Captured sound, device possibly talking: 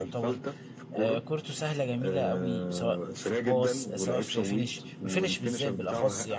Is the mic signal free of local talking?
No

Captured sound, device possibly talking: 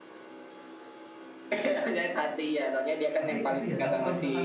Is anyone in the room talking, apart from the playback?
Yes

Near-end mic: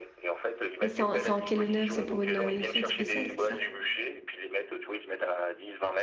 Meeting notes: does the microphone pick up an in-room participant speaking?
Yes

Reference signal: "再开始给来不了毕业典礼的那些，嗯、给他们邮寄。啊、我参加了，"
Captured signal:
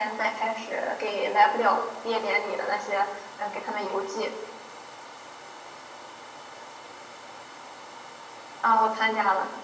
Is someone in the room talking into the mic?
No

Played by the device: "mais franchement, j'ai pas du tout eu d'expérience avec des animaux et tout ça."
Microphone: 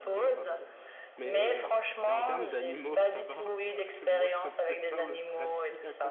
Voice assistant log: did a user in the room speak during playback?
Yes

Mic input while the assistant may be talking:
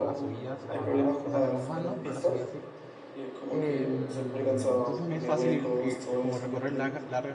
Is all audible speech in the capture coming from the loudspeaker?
No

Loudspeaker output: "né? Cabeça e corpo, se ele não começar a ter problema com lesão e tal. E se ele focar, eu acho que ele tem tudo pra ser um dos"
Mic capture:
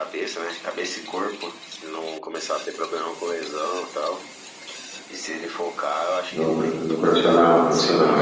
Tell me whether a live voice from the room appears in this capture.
Yes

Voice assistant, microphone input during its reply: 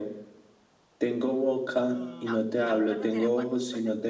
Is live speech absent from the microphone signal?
No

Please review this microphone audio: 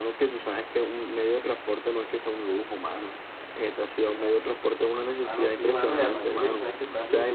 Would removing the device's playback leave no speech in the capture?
No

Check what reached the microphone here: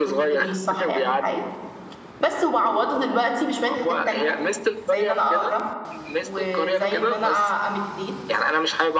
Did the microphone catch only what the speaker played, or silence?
No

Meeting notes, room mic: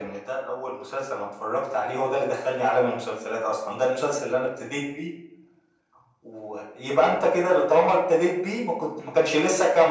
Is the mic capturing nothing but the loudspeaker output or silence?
Yes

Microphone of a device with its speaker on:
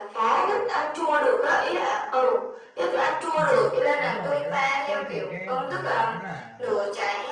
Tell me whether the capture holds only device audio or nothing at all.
No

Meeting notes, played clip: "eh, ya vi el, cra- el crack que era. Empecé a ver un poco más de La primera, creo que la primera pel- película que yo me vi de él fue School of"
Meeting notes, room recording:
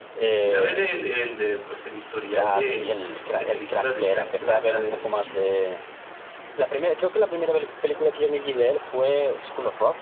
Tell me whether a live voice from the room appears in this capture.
Yes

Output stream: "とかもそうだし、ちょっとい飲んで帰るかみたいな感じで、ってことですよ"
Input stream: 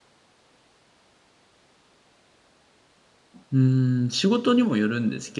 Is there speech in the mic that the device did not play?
Yes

